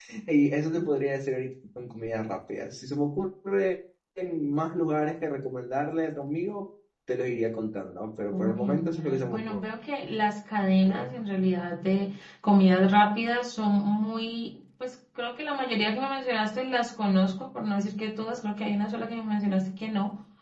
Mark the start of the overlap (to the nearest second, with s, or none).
8 s